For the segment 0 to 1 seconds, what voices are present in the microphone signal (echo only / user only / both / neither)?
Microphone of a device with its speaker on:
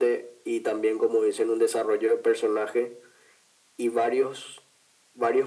echo only